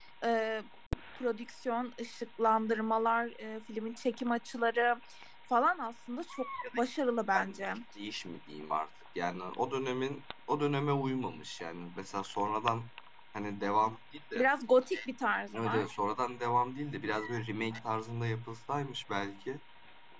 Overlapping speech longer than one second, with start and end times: none

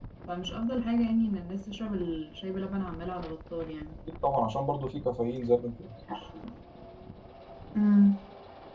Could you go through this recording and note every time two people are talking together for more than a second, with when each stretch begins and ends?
none

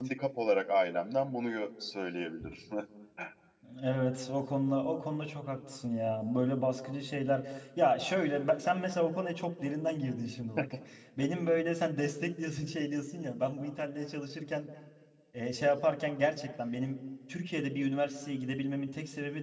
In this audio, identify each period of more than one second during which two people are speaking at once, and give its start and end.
none

